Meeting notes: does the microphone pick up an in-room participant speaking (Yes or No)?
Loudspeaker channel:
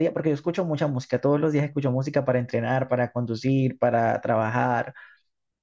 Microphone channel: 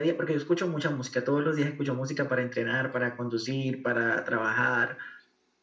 No